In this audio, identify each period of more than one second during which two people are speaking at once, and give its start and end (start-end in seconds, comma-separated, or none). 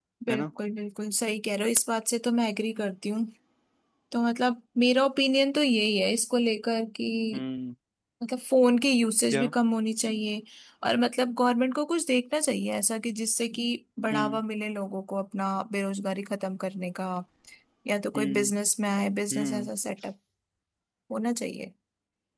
none